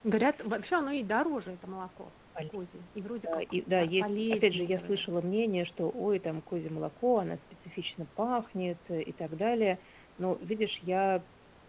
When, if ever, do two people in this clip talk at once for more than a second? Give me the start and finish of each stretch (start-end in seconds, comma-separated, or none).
3.3-5.1